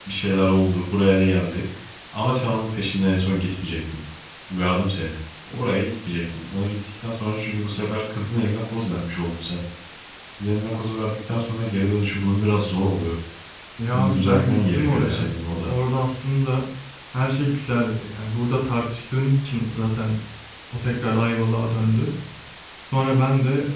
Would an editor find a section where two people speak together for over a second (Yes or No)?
Yes